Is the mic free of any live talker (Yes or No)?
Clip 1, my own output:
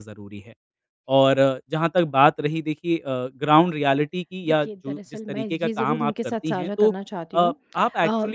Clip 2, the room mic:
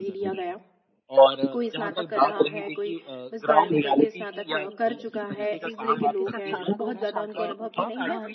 No